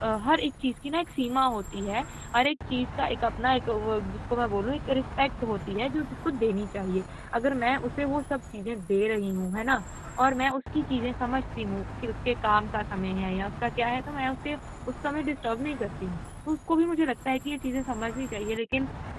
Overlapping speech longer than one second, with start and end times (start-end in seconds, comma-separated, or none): none